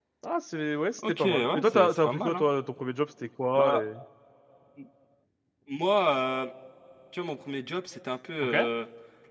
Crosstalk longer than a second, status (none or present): present